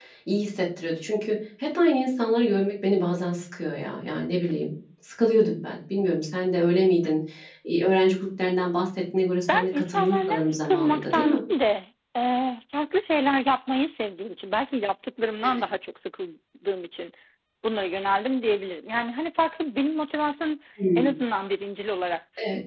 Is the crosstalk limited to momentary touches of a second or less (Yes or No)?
No